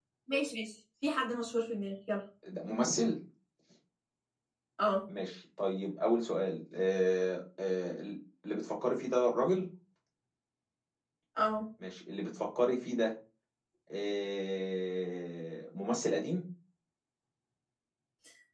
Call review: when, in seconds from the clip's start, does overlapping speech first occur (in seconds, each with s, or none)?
none